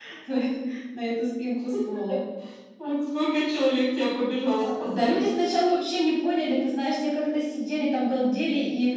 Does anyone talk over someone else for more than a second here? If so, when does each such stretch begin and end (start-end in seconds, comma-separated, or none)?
none